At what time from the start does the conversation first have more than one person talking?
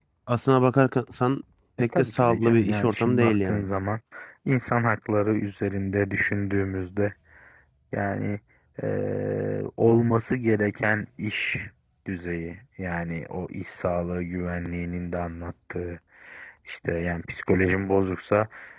2 s

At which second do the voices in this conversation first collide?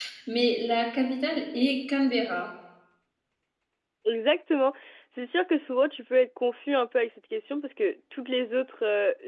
none

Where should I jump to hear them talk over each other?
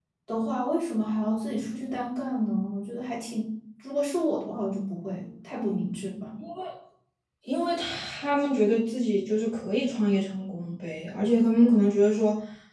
none

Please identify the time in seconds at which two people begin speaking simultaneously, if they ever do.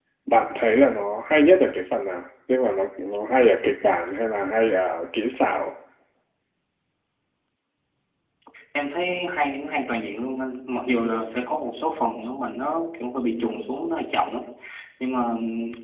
none

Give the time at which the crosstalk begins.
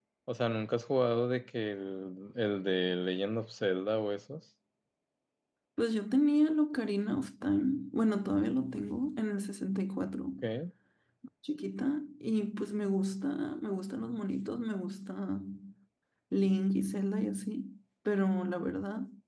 none

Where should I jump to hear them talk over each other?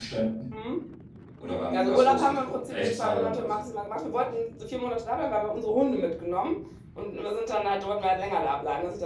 2 s

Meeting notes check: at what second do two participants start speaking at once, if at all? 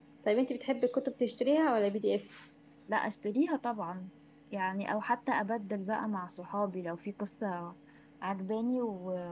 none

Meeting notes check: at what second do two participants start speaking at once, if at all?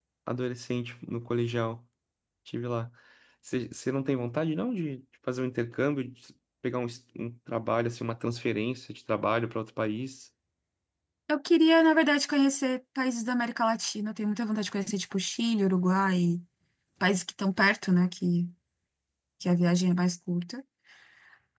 none

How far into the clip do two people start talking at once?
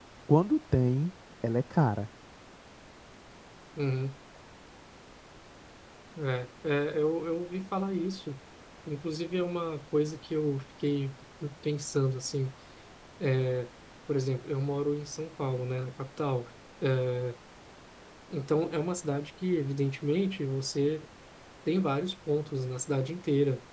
none

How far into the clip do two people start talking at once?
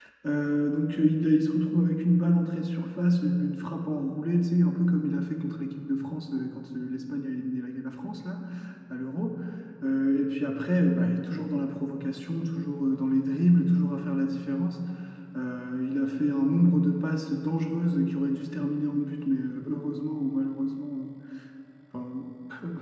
none

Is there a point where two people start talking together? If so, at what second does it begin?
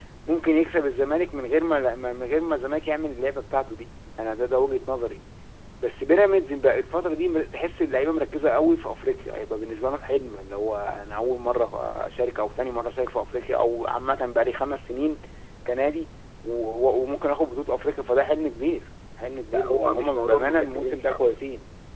19 s

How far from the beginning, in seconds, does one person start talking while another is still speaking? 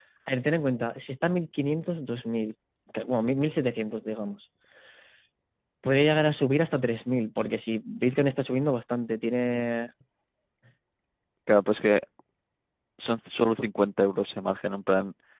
none

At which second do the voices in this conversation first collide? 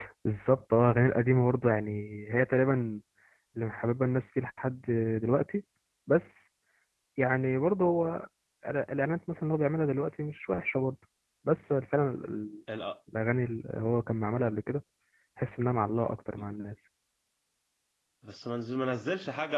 none

